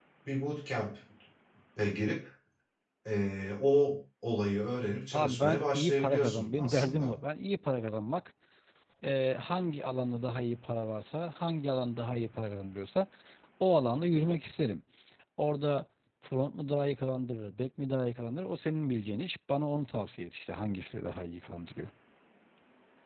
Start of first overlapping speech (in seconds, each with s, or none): 5.1 s